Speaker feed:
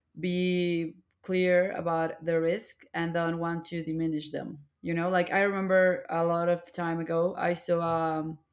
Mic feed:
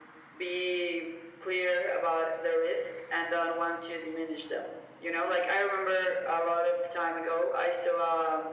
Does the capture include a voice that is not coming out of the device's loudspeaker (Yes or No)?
No